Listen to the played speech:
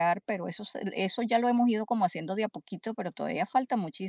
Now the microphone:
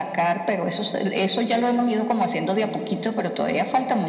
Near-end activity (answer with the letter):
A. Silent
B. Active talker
A